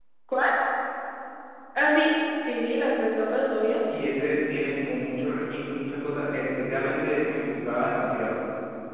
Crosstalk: none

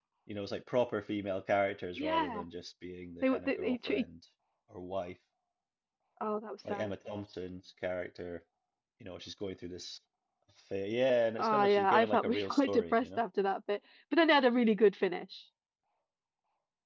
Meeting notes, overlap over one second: present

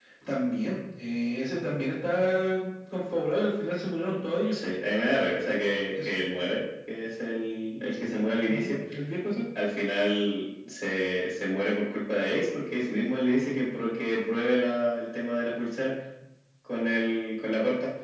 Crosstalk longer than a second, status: none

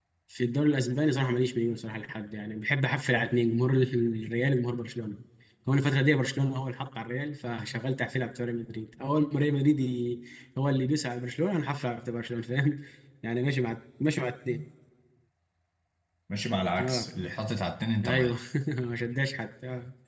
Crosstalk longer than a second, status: none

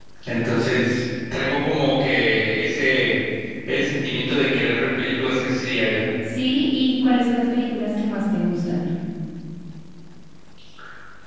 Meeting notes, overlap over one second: none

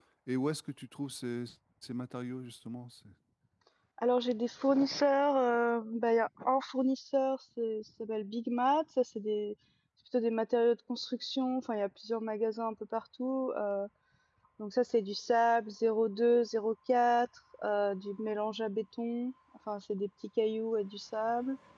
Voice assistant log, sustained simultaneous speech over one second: none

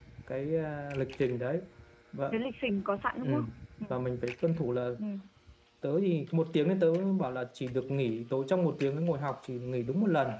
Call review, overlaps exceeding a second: none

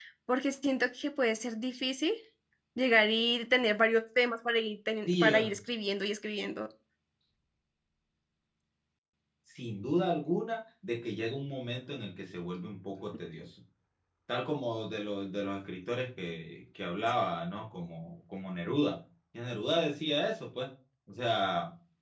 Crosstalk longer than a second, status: none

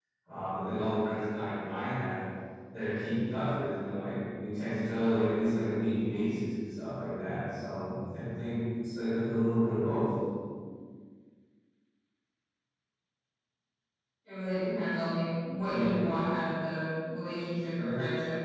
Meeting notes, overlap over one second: none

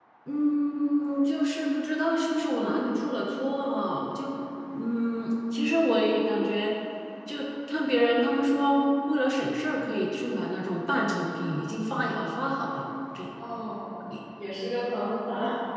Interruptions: none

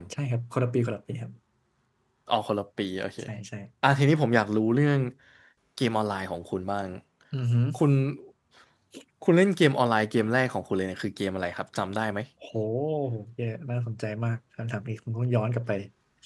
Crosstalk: none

